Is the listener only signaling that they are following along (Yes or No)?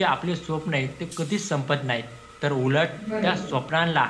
Yes